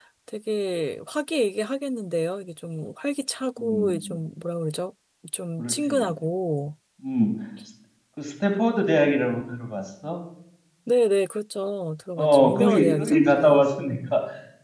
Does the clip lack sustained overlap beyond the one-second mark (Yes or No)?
No